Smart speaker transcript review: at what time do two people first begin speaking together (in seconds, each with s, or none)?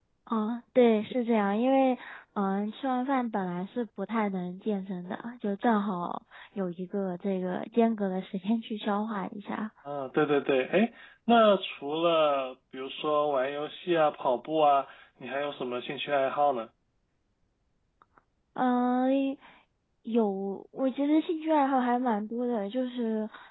none